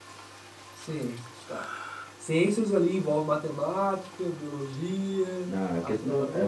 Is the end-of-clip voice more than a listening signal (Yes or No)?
Yes